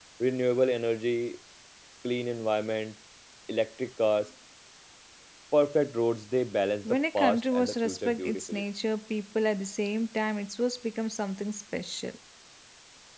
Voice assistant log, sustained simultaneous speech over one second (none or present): present